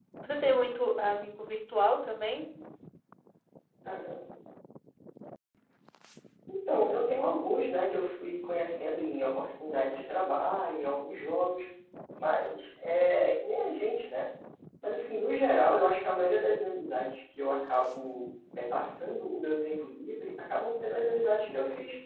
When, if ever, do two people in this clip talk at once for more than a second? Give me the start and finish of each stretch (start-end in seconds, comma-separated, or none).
none